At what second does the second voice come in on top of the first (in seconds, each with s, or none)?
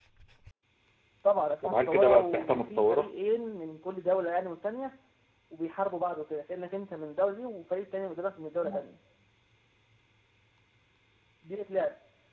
1.6 s